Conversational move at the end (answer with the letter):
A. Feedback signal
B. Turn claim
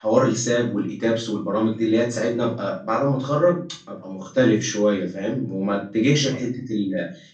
A